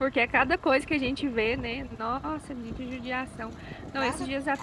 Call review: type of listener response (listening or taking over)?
listening